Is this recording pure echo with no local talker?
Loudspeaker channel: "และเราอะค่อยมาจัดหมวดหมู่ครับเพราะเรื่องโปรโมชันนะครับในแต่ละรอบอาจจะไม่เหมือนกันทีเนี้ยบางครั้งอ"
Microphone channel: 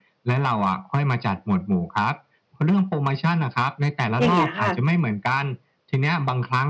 No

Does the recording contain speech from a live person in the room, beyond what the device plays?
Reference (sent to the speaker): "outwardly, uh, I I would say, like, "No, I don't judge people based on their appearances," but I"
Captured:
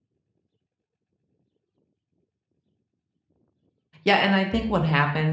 Yes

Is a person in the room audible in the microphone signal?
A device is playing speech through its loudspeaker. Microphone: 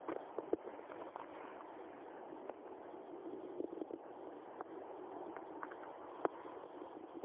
No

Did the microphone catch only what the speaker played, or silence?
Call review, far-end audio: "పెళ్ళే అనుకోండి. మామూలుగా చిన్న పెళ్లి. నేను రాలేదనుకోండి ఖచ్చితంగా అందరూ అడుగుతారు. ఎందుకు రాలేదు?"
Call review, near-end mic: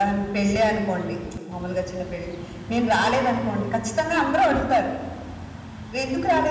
Yes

